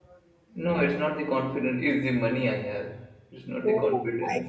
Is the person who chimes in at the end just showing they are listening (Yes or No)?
No